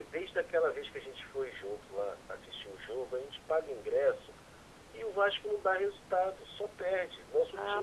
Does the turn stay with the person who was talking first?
No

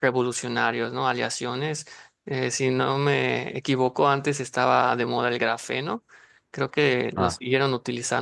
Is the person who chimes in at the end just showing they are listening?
Yes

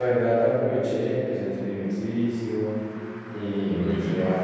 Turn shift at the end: No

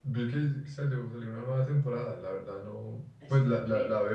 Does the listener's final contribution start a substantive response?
No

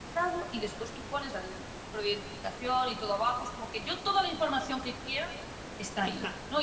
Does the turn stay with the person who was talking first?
Yes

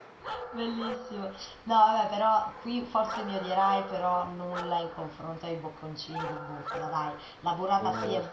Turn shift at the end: No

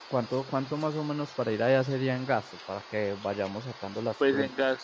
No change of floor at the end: No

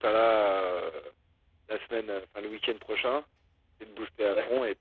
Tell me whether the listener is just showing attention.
Yes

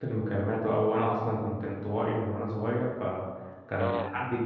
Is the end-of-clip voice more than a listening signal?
No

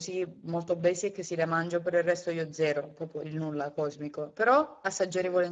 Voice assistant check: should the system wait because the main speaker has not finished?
Yes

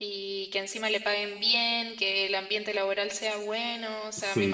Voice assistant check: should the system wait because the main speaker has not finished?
Yes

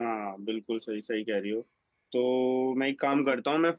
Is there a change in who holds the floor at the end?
No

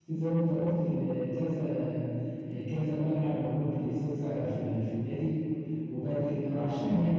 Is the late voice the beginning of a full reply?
No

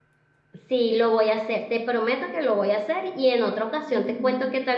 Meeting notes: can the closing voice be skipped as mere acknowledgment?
Yes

